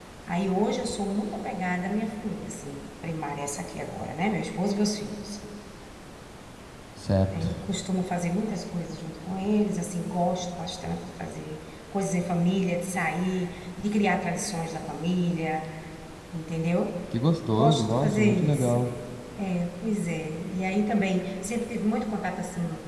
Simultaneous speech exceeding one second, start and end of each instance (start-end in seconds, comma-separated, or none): 17.5-18.7